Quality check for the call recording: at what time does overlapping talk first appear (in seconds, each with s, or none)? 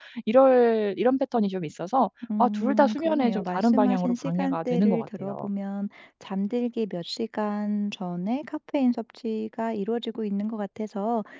2.2 s